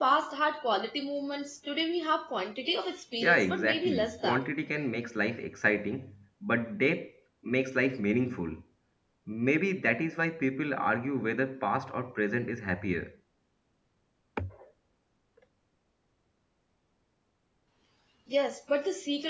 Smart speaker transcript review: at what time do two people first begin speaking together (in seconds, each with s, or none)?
3.2 s